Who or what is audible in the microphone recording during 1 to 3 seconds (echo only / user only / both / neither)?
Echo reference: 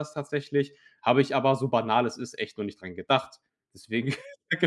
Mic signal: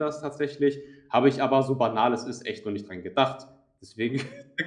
echo only